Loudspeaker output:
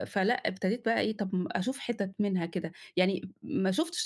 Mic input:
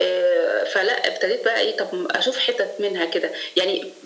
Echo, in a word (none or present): present